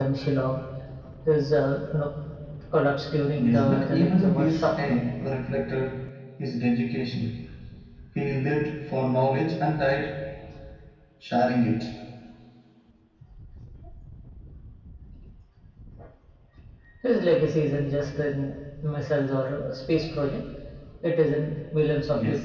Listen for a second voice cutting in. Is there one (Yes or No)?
Yes